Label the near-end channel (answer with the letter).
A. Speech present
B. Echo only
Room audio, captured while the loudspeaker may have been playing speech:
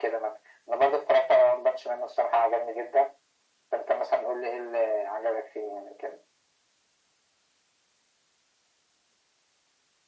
B